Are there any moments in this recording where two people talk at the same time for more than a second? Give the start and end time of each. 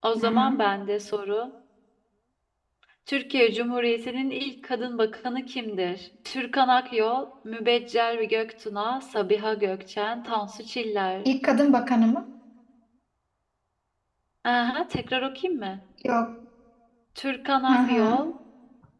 none

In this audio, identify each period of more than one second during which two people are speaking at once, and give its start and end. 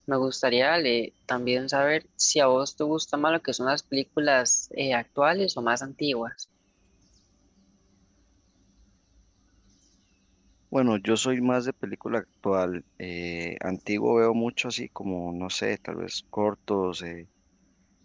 none

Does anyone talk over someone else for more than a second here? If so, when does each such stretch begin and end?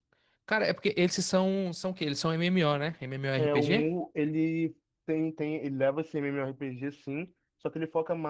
none

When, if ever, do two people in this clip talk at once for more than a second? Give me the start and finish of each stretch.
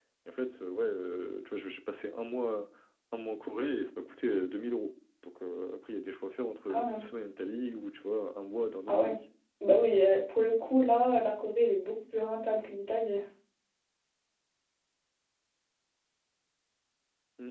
none

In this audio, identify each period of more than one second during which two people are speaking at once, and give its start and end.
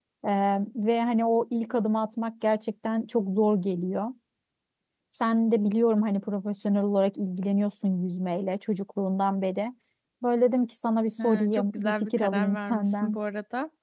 11.2-13.2

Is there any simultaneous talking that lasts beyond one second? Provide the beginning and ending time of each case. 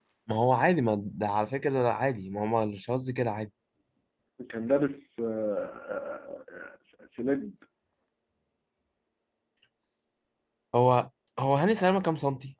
none

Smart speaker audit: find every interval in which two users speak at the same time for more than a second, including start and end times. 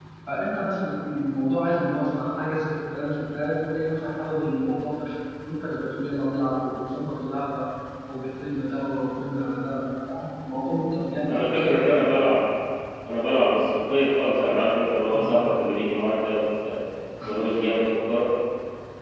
none

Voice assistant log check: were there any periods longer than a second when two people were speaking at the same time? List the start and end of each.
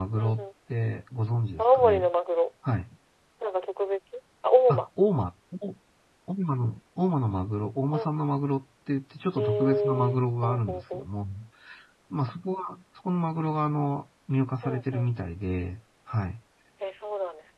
9.4-11.1

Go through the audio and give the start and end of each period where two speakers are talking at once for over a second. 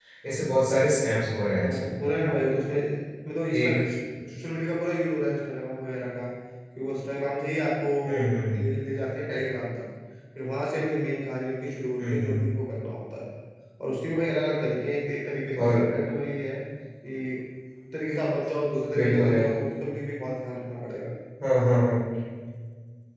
none

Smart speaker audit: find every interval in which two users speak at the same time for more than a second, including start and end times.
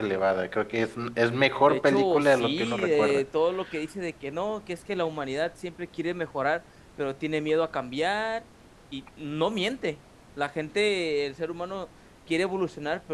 1.6-3.2

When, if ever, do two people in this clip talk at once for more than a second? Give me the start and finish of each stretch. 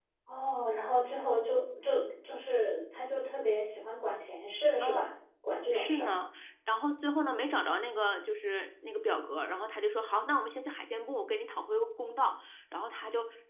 none

